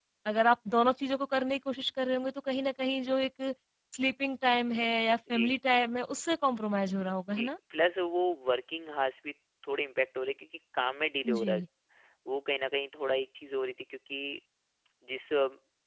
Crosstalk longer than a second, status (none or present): none